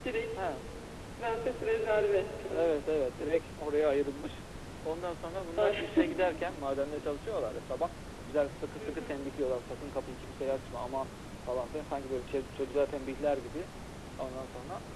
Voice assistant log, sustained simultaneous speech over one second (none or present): none